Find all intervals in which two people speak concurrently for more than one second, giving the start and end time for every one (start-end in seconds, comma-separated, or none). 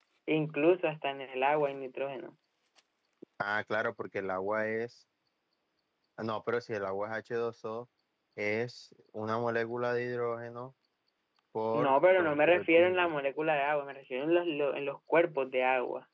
11.7-13.1